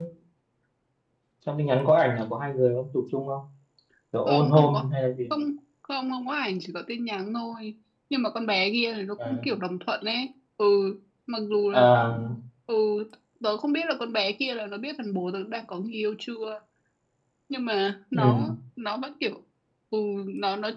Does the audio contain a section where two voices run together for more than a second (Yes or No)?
No